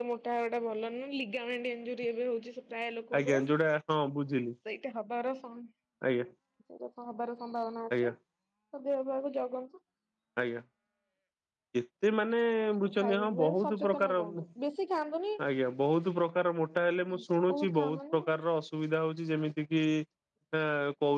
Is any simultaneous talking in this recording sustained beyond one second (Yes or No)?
Yes